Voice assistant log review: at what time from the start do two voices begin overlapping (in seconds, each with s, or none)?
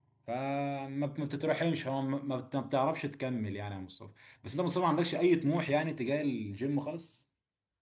none